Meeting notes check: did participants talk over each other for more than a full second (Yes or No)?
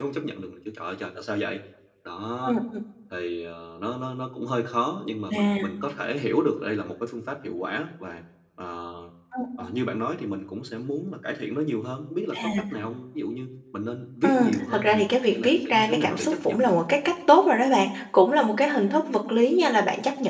Yes